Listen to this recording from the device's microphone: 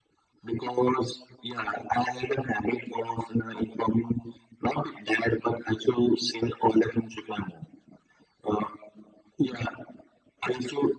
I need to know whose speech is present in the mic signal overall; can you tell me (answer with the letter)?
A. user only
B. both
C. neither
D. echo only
D